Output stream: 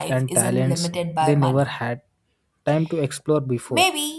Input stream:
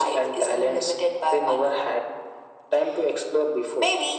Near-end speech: none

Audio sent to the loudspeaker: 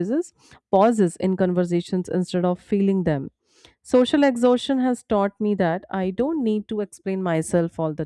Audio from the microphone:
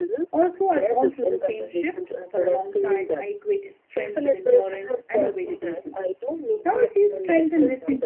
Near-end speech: present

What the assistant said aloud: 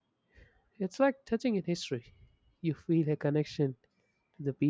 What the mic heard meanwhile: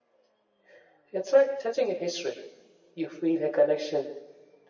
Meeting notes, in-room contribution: none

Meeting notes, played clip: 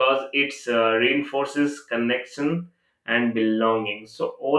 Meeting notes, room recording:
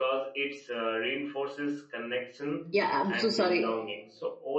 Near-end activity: present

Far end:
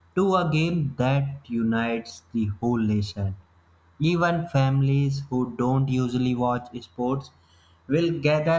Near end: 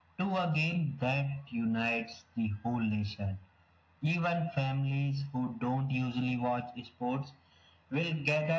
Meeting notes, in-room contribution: none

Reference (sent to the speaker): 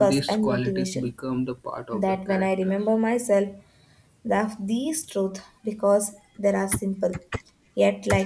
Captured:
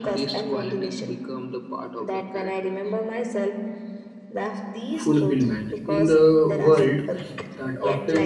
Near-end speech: present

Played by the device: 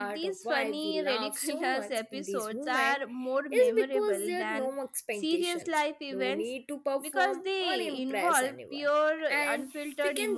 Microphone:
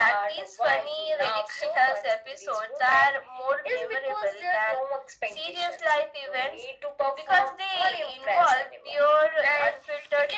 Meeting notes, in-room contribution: none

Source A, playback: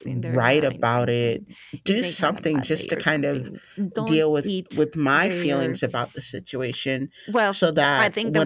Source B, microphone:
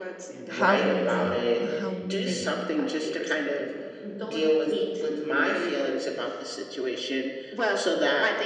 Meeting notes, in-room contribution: present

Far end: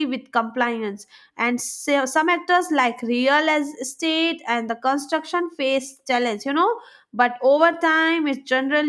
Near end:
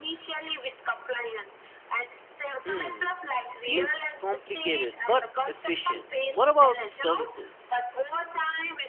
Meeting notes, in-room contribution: present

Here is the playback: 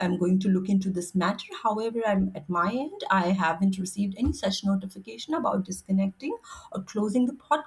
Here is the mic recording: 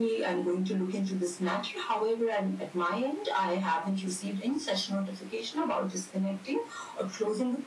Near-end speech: none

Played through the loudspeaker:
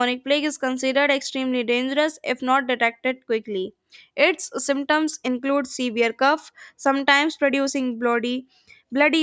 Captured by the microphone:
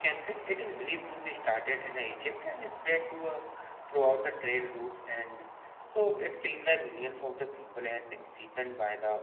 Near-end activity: present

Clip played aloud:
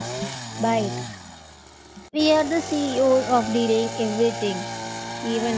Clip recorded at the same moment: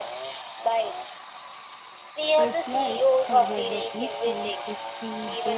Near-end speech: present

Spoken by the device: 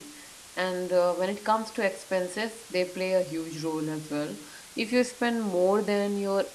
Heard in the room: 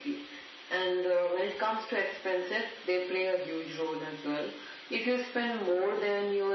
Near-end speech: none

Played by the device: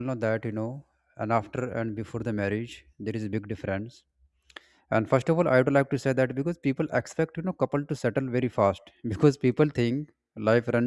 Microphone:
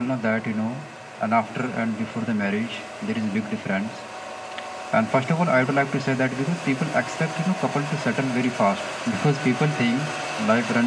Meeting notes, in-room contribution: none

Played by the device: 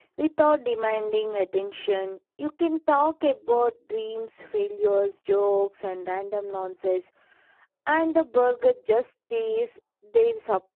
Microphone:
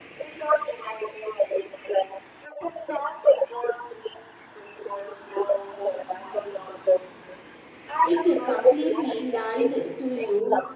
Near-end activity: present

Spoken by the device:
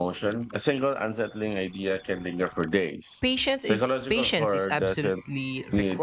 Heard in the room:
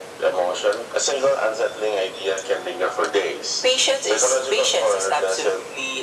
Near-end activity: none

